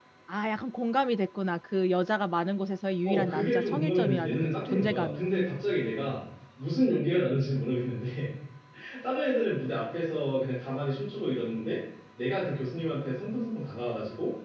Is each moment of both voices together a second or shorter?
No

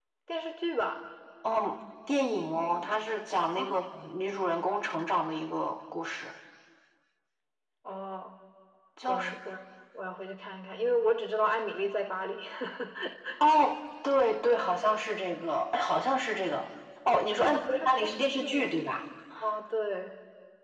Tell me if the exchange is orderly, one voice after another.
No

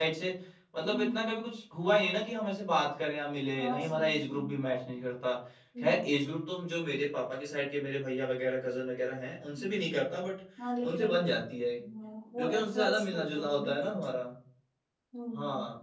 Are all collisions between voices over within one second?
No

